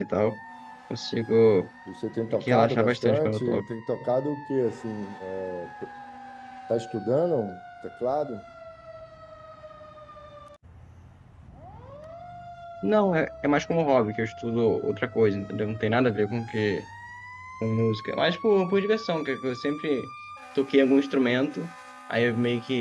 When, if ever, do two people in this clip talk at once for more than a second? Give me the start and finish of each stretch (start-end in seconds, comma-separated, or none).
2.3-3.6